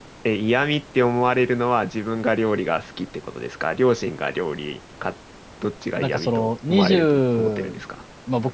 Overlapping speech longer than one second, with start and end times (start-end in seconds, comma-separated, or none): 6.0-7.8